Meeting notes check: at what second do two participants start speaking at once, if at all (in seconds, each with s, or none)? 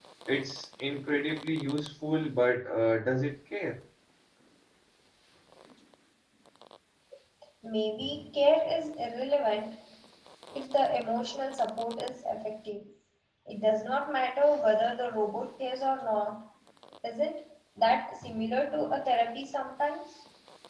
none